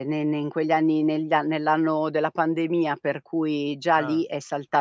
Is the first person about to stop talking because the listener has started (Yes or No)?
No